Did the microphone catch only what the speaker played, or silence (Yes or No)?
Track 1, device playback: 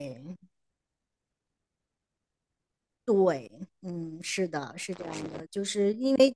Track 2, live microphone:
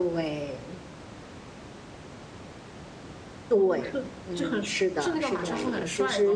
No